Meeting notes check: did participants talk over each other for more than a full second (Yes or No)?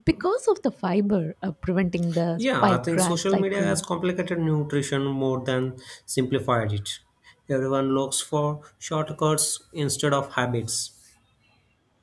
Yes